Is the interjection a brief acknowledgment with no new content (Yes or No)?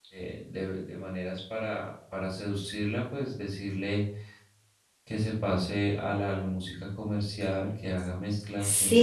No